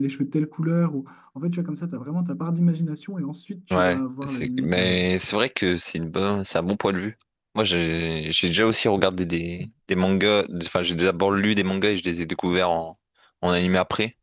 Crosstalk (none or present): present